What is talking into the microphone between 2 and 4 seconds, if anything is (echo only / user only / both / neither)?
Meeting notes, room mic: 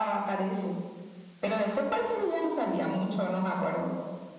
echo only